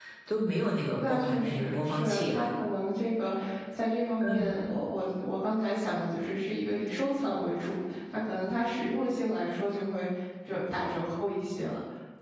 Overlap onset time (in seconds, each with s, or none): 1.0 s